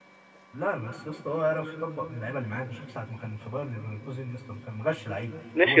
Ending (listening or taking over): taking over